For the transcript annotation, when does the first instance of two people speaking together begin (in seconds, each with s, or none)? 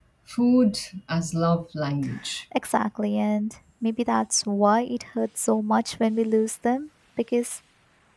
none